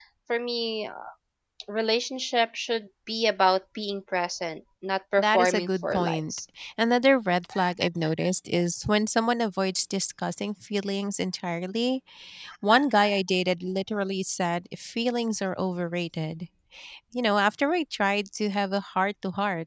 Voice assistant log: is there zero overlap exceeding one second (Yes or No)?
No